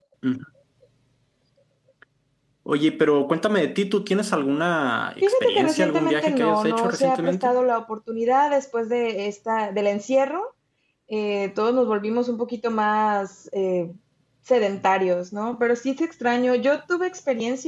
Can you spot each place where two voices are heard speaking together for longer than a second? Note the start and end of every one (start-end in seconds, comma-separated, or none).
5.2-7.5